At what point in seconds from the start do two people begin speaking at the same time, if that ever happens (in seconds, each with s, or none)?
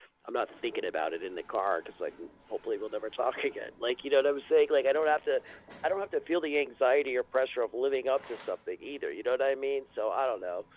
none